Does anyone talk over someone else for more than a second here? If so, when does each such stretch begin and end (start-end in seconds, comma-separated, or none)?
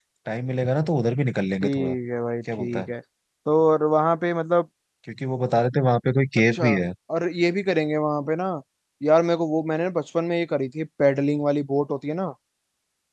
none